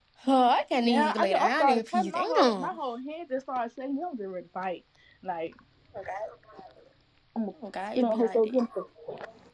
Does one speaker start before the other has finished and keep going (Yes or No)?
Yes